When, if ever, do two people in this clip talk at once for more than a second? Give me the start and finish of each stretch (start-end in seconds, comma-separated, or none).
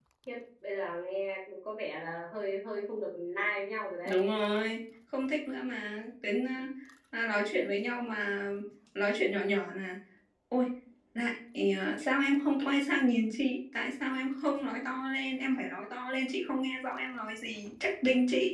none